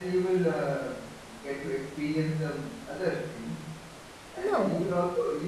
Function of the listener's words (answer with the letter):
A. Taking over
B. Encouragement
B